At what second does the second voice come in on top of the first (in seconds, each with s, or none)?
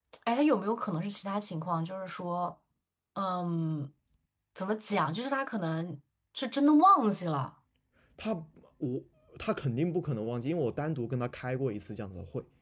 none